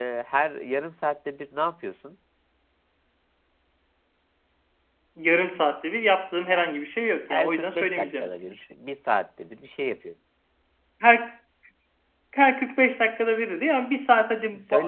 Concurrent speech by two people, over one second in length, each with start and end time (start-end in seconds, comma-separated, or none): 7.3-8.6